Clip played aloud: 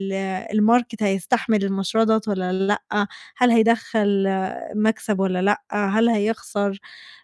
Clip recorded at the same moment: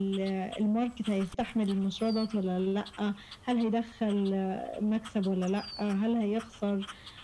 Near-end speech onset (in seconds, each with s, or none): none